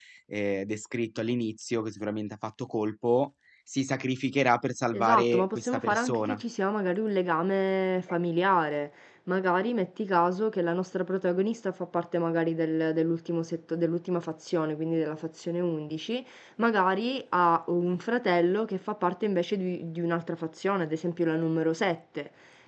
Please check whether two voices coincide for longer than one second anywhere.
Yes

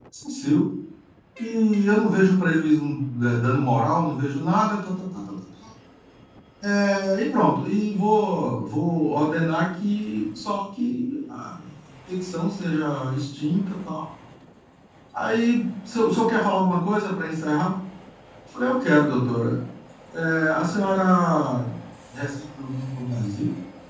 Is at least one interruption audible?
No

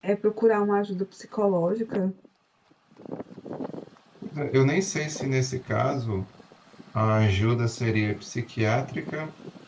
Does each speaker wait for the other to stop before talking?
Yes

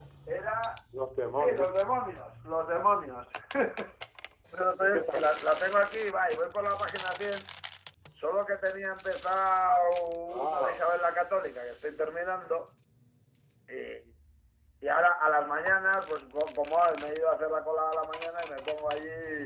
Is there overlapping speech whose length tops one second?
No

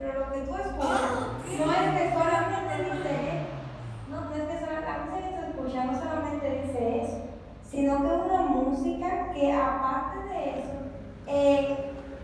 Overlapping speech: Yes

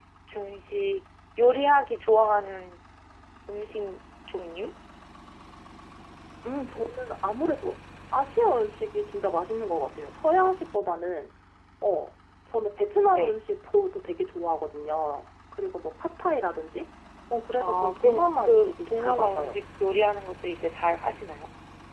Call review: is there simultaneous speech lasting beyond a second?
Yes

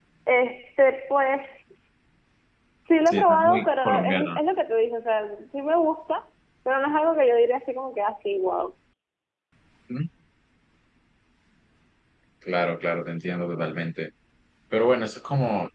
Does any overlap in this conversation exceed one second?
Yes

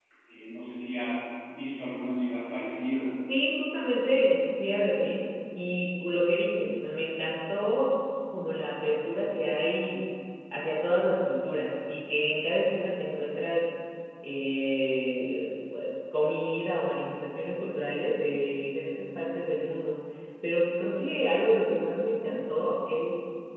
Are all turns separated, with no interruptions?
Yes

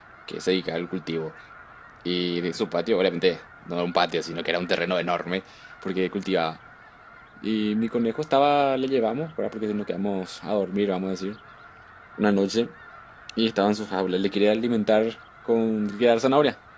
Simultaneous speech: No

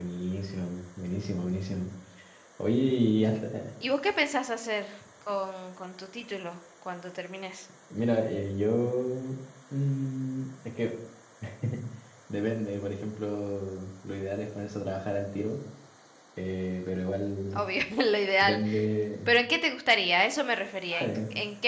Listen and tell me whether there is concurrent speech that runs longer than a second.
No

